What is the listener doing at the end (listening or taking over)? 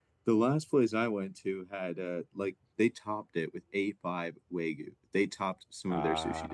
listening